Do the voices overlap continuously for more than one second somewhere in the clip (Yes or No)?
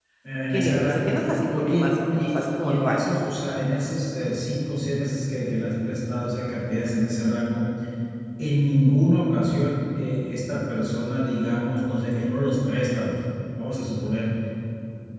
Yes